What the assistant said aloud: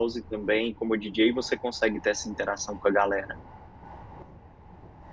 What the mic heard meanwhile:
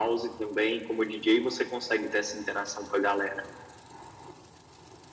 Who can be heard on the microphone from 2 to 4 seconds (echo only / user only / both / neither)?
echo only